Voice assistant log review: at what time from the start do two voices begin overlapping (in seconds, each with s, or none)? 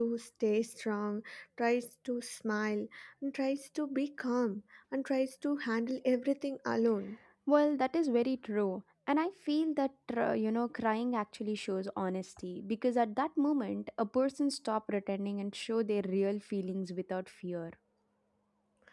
none